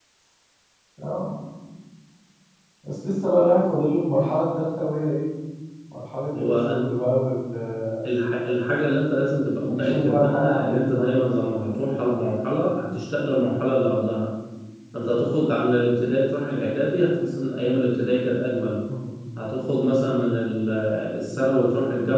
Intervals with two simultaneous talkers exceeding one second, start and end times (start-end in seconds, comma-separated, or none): 9.7-11.2